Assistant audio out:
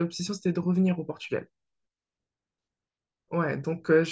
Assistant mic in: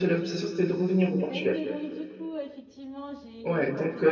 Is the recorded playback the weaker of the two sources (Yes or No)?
No